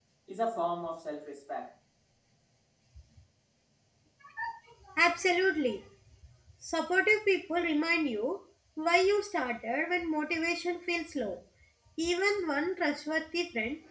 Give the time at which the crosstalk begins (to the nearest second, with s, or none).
none